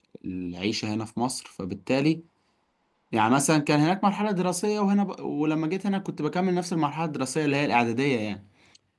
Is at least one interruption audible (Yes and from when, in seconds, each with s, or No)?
No